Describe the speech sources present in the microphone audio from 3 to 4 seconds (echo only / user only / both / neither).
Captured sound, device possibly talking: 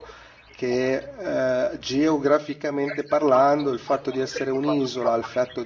both